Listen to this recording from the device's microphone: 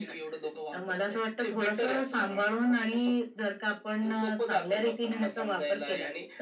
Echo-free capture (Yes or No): No